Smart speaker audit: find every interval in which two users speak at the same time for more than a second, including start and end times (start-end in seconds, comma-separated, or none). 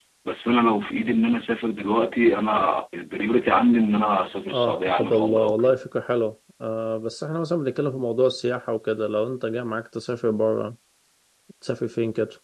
4.5-5.8